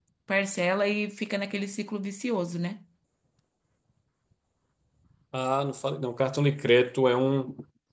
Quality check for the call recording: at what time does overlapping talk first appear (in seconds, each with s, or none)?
none